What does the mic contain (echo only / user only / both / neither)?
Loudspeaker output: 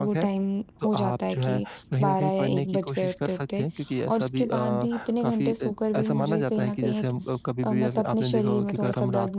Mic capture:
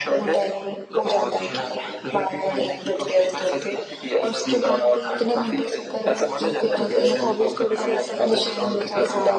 both